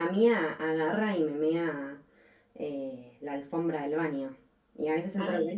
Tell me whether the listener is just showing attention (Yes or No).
Yes